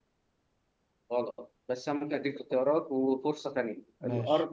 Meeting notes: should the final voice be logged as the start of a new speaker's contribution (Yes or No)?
No